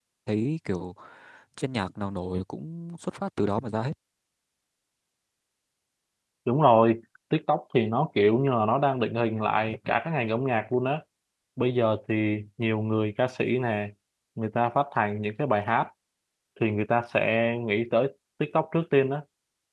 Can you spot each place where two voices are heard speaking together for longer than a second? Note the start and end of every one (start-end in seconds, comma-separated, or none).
none